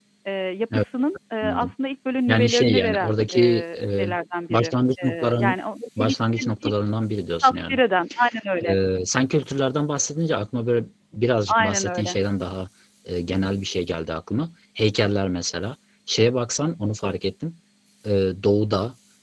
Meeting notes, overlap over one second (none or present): present